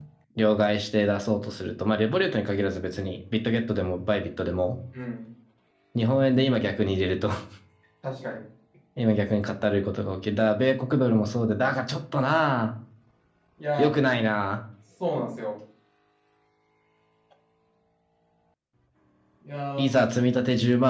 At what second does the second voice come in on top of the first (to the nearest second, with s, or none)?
none